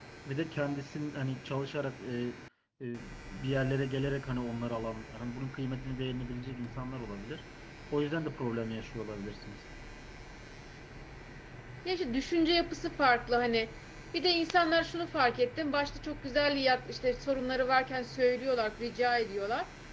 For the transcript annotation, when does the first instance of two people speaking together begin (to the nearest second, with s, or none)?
none